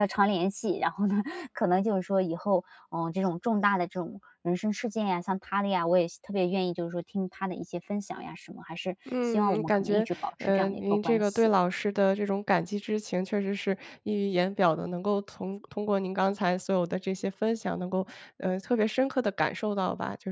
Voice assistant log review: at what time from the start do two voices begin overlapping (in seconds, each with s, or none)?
9.1 s